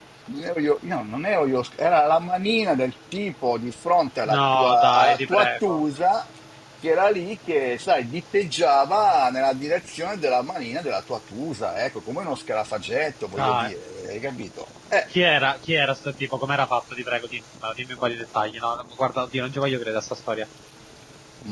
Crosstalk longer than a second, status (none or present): present